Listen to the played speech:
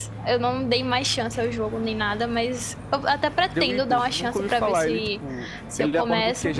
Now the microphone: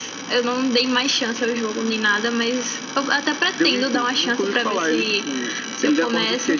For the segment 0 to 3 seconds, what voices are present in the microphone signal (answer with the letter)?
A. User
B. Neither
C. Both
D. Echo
D